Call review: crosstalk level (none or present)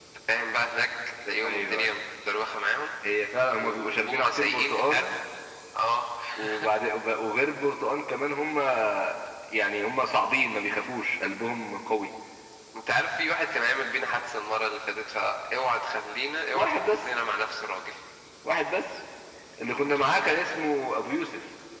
present